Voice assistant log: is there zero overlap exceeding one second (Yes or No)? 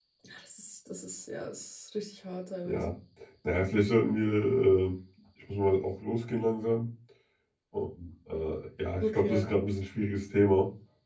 Yes